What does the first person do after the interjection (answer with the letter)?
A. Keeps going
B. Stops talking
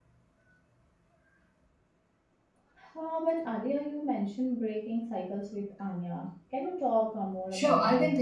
B